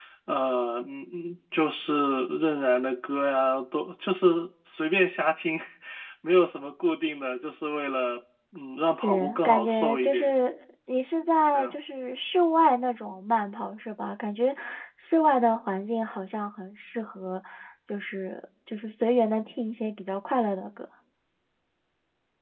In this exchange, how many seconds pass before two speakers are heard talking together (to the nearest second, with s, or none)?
9 s